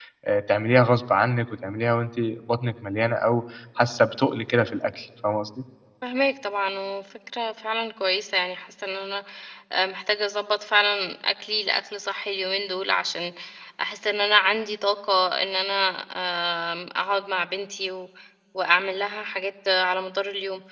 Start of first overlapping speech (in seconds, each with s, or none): none